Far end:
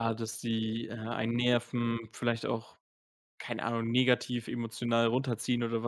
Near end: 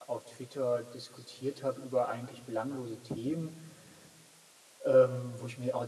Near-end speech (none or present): present